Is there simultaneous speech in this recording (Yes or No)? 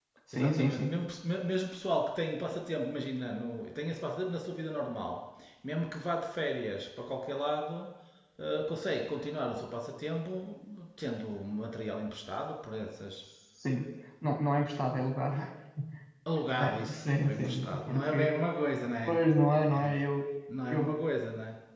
Yes